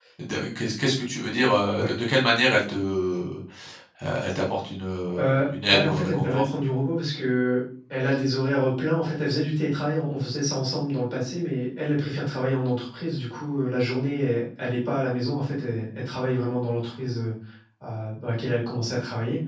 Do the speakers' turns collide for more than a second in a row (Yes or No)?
Yes